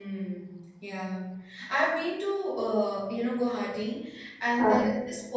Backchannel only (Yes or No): Yes